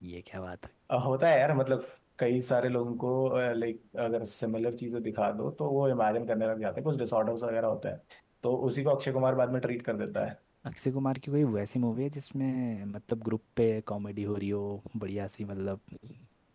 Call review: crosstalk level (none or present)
none